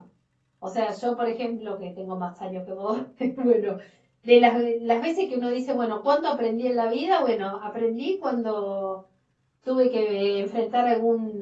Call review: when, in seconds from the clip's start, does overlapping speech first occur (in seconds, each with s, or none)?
none